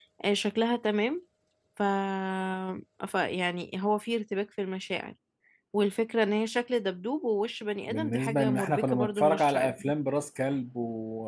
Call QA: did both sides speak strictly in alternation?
No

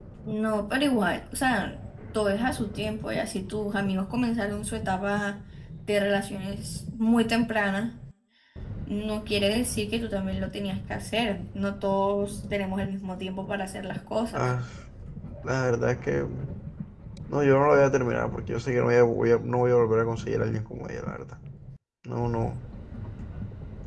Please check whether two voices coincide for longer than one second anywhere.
No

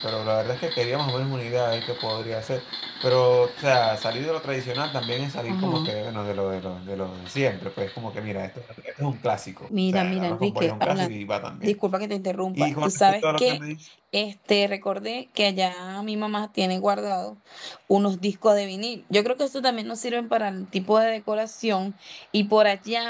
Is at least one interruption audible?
Yes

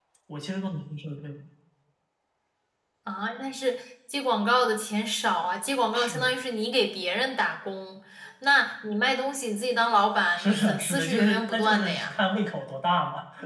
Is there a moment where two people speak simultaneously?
Yes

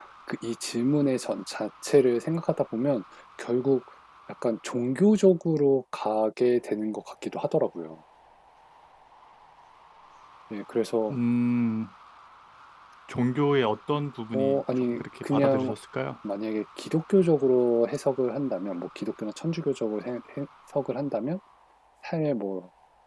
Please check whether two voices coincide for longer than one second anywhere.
Yes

